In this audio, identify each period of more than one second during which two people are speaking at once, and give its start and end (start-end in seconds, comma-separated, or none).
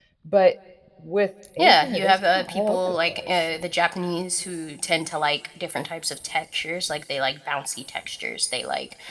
1.6-3.3